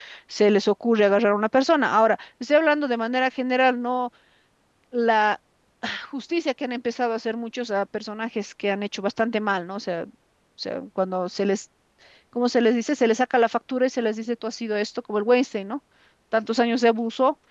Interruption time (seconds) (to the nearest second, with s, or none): none